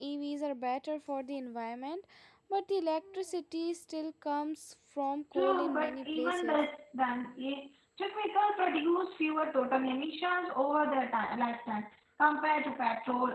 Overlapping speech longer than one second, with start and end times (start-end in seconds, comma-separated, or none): 5.3-6.6